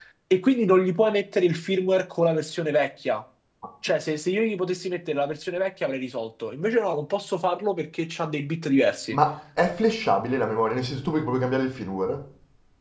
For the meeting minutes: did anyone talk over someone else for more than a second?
No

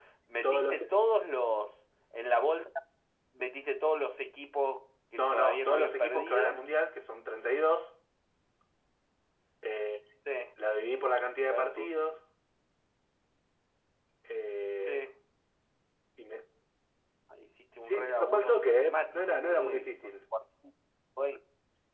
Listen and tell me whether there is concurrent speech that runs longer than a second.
Yes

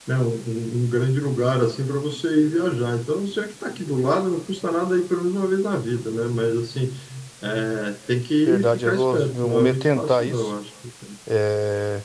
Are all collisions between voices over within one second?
No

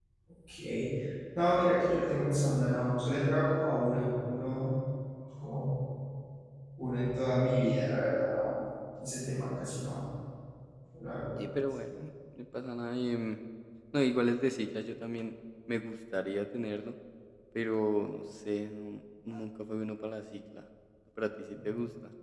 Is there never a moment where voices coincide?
Yes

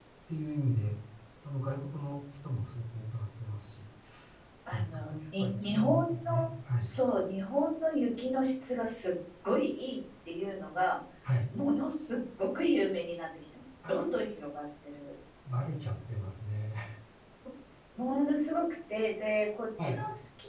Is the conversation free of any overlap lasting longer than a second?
No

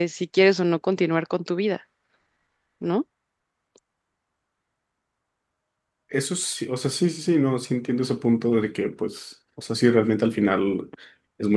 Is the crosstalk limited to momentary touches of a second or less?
Yes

